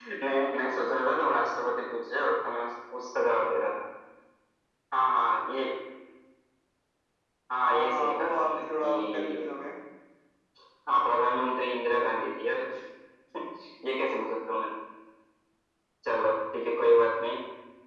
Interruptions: present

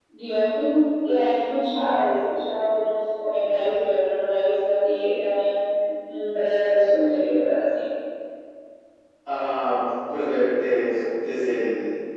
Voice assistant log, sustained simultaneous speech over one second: none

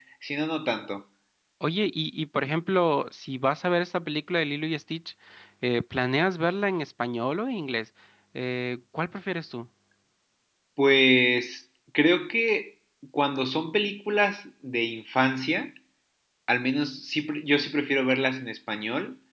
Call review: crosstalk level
none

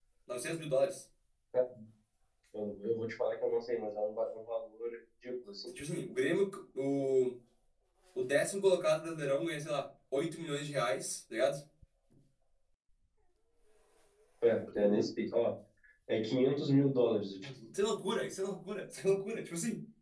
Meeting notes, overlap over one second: none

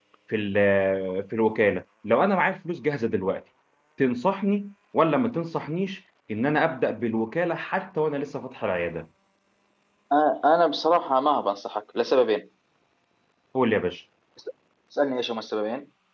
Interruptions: none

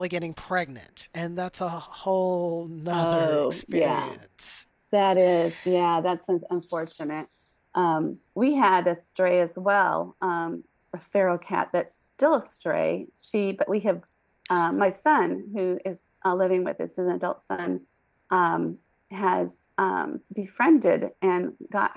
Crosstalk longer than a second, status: present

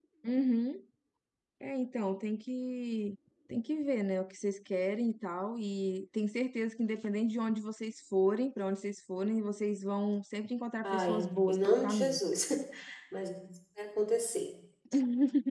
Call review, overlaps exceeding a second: present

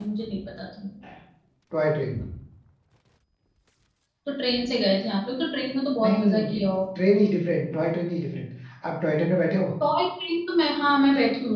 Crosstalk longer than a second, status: none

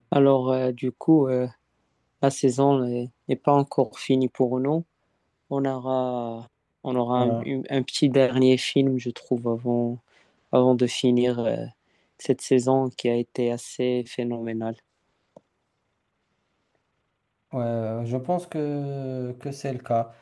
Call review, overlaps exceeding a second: none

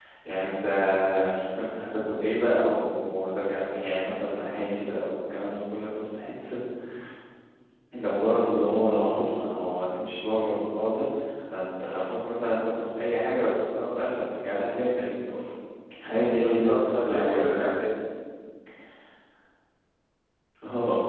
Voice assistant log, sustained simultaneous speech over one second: present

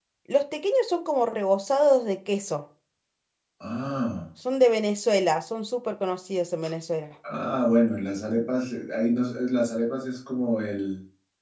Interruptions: none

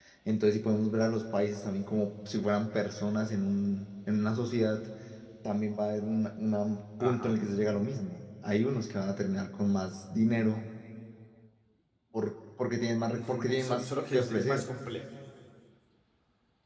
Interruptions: present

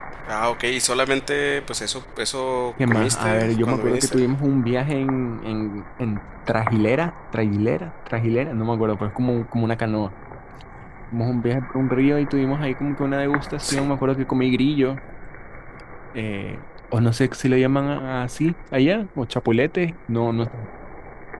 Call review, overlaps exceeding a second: present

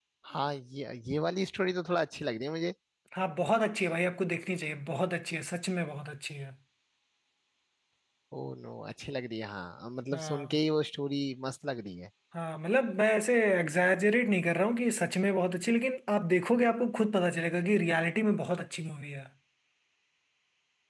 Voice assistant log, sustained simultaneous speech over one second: none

